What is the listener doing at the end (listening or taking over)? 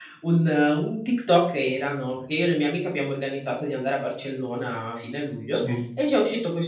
listening